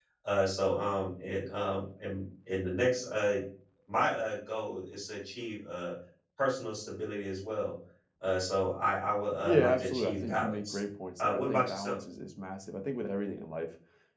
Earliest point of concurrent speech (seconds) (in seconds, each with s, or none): 9.4 s